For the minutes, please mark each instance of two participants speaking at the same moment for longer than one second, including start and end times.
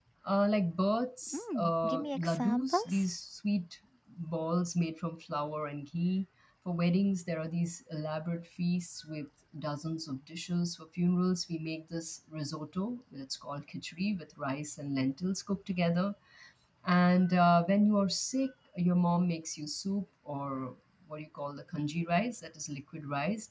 1.3-3.1

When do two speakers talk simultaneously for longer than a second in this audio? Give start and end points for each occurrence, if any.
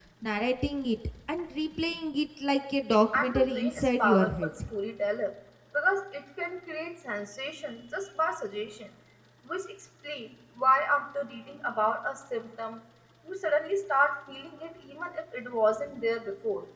3.1-4.5

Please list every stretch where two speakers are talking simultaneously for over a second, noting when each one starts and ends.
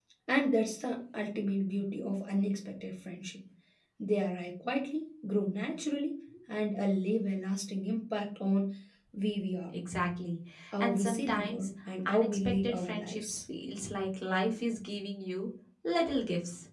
10.8-13.4

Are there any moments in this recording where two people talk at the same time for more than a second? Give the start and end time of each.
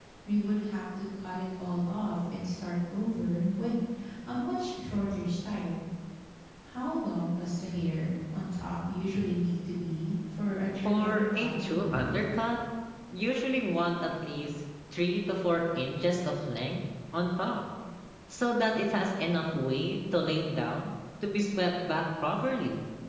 10.8-12.2

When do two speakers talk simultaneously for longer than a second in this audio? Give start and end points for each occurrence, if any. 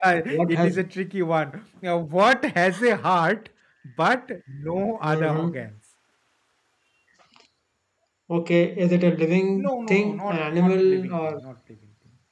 9.7-11.1

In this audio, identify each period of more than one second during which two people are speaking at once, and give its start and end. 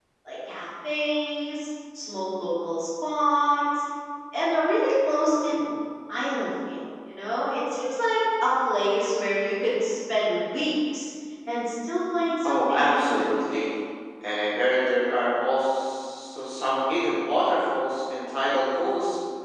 12.4-13.7

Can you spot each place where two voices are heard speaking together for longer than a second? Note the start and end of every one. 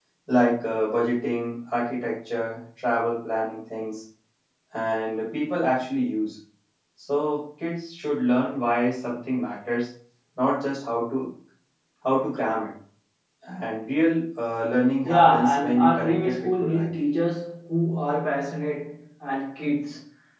15.0-16.9

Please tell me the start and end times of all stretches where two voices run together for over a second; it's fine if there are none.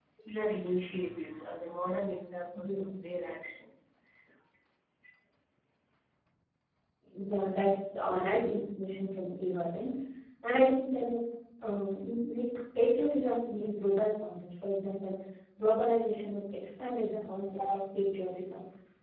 none

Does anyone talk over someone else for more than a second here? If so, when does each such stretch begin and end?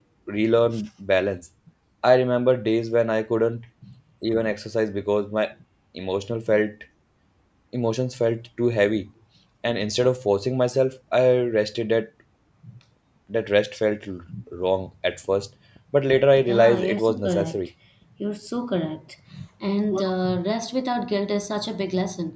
16.4-17.6

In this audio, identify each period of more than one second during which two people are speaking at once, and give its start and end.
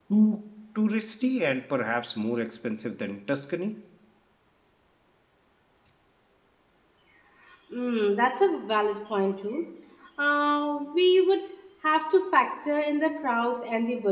none

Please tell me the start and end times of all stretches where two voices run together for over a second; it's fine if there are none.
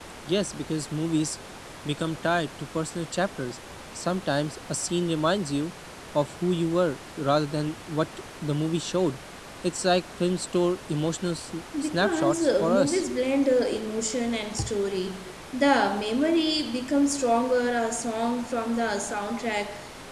11.8-13.0

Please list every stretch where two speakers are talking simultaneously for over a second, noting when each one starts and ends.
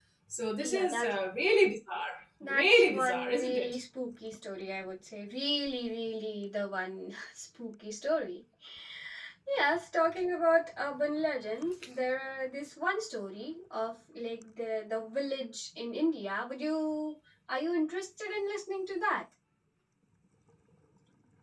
2.4-3.8

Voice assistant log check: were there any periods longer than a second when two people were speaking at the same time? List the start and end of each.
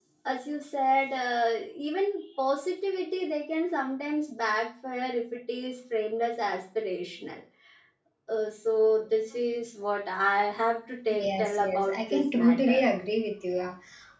11.1-12.8

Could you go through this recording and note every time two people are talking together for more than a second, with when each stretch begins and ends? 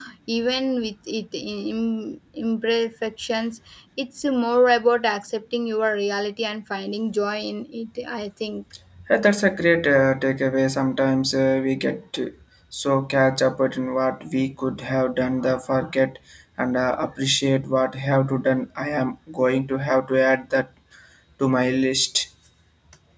none

